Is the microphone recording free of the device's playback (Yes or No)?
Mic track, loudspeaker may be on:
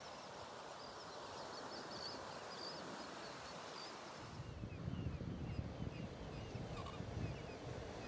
Yes